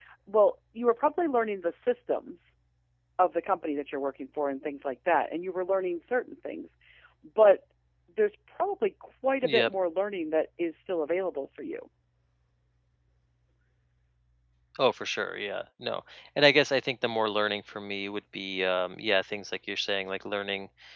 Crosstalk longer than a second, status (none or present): none